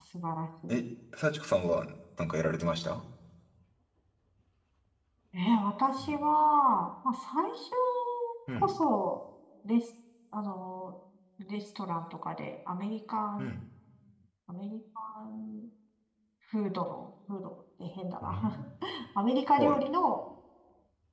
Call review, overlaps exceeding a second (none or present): none